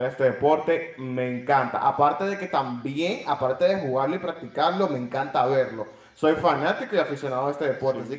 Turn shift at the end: No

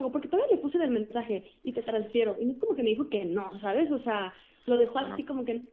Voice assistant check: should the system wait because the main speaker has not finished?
Yes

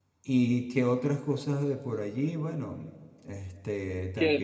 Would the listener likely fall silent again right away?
No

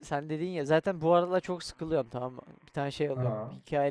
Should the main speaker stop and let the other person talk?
No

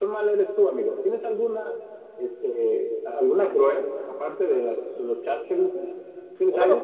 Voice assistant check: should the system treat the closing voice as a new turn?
Yes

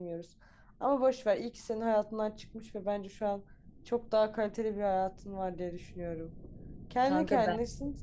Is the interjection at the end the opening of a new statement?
No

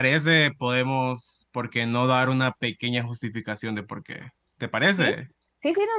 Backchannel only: No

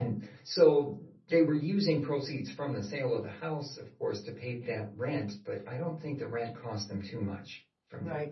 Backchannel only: No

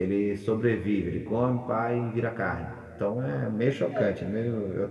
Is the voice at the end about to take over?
No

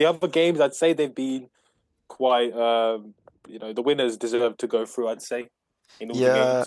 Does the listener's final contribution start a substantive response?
Yes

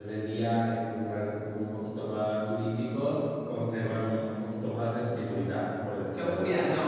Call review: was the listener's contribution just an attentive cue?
No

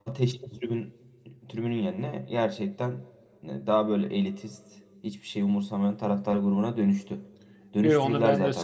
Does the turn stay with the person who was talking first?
No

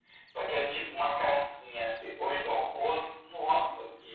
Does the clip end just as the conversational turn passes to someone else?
Yes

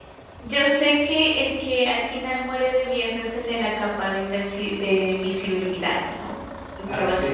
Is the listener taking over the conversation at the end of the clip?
No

